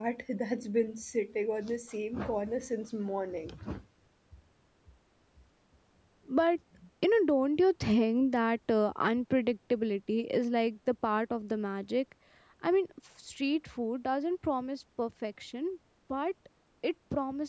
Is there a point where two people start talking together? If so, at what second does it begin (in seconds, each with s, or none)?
none